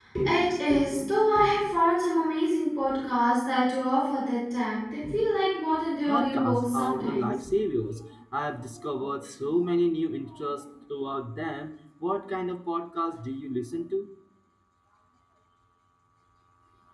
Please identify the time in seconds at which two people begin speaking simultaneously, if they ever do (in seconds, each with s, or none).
6.0 s